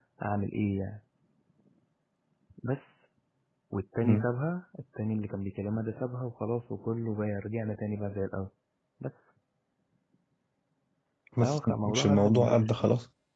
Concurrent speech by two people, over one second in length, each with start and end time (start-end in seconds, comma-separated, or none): 11.4-12.7